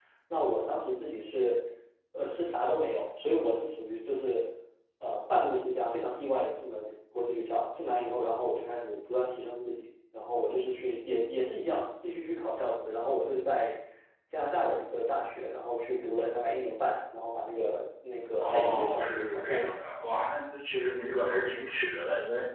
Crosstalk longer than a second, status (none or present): present